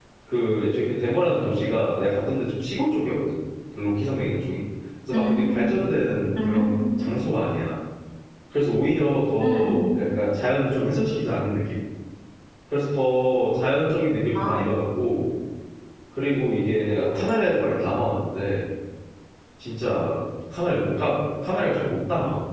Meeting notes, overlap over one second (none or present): none